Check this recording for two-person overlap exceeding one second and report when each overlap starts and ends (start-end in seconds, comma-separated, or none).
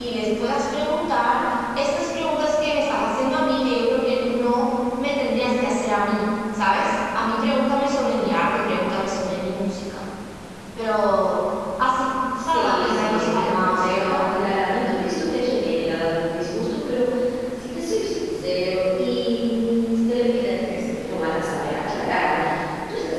12.5-14.2